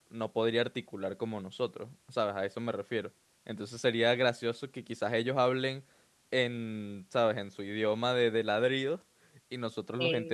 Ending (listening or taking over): listening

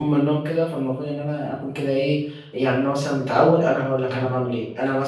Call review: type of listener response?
listening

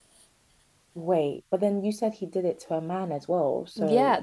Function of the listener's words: taking over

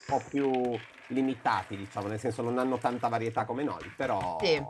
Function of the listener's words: taking over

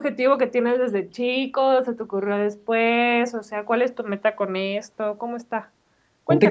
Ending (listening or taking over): taking over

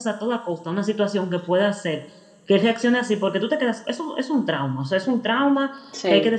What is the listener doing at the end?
listening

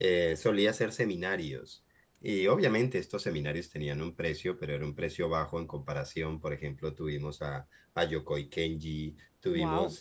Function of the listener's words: listening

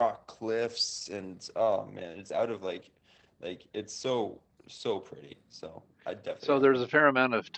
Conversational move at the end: taking over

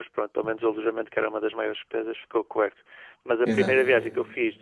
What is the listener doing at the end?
listening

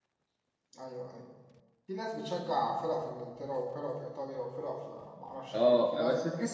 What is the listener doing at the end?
taking over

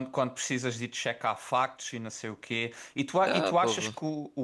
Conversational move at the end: listening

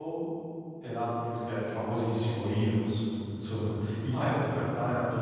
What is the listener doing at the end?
listening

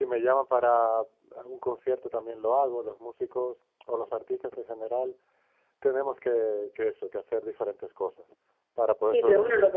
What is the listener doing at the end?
taking over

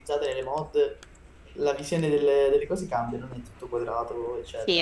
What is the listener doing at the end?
taking over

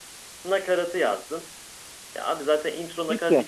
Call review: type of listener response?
listening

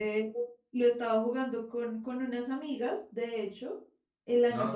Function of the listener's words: listening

